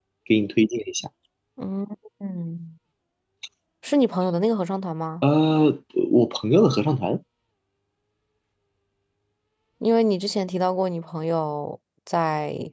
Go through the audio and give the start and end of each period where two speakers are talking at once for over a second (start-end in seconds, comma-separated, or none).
none